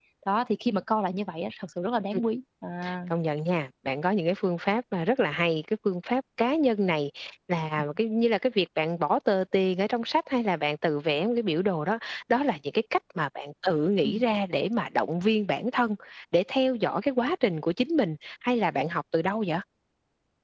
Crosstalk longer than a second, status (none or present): none